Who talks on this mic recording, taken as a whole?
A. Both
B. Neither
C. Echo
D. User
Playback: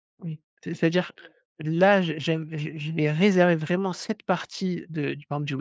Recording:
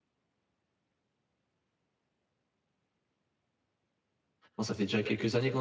D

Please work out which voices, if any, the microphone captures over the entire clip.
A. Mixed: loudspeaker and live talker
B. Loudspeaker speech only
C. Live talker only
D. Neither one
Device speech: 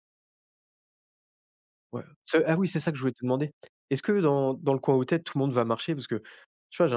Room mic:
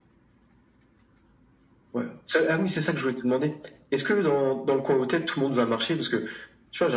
B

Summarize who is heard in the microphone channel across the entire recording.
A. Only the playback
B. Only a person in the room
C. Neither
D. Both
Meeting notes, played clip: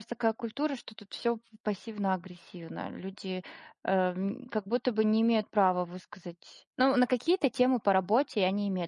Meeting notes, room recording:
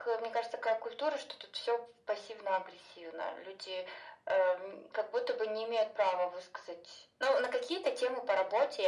A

